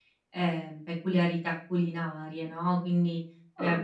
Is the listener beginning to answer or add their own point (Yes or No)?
No